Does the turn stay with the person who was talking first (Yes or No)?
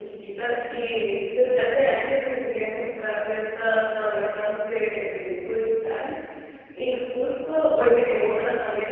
Yes